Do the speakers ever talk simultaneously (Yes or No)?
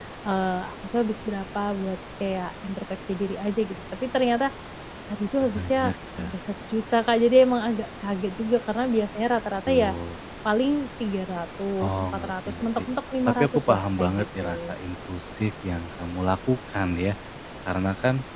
Yes